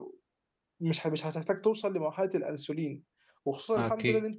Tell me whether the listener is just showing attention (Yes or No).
Yes